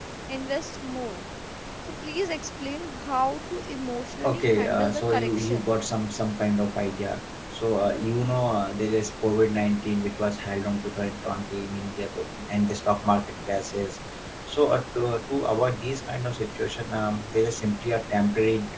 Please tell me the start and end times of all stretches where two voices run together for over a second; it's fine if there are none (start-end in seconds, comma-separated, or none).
4.2-5.8